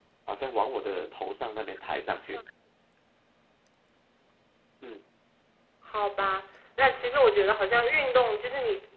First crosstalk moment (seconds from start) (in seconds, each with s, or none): none